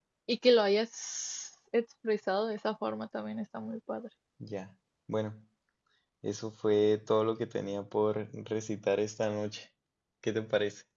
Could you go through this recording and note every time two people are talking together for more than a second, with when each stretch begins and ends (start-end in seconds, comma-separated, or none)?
none